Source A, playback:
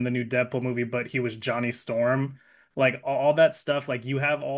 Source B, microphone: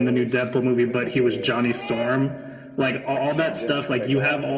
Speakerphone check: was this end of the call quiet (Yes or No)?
No